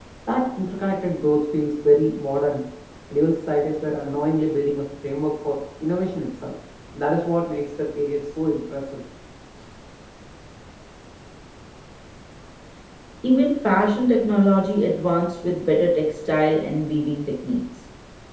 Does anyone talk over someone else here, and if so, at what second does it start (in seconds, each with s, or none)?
none